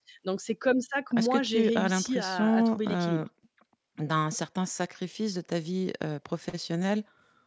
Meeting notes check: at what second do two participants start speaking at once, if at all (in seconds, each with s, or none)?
1.2 s